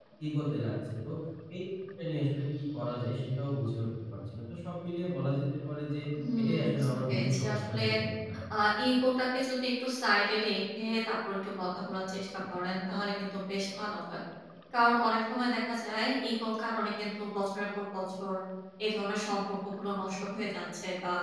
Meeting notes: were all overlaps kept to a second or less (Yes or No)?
No